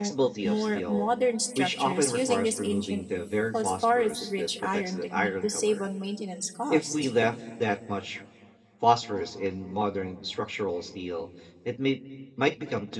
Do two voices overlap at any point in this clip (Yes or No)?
Yes